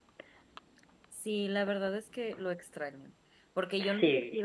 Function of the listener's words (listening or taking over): listening